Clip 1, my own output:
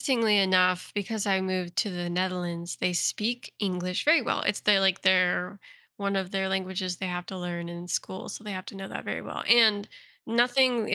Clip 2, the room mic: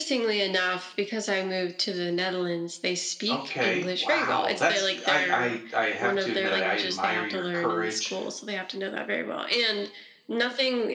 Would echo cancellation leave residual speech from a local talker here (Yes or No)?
Yes